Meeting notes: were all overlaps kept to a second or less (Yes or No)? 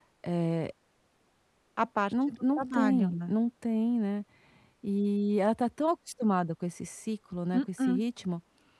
No